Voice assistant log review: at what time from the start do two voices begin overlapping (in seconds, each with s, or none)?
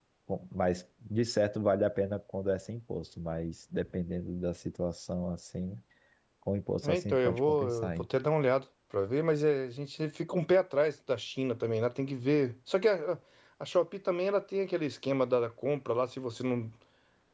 6.8 s